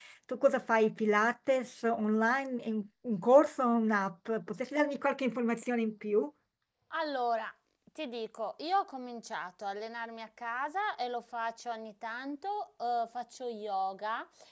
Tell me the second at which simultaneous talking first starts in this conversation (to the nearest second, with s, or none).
none